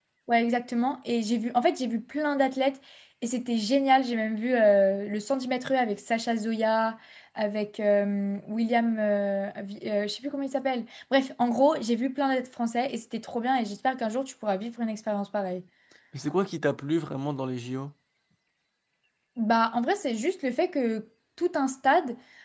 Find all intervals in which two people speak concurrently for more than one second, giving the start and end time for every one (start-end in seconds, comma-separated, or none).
none